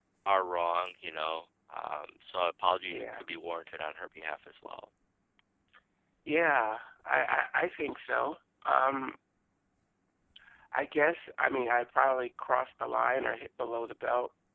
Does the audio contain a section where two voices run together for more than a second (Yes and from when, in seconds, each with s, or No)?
No